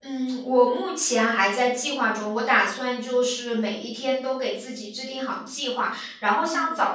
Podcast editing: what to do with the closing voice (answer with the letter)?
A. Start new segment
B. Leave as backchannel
B